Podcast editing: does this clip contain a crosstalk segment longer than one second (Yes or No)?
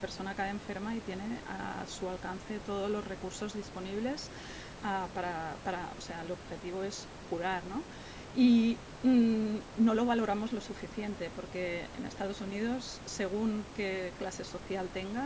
No